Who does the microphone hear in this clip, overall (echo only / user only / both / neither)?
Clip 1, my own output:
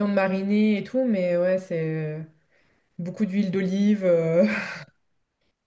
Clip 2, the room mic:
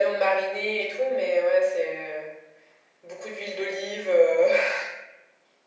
echo only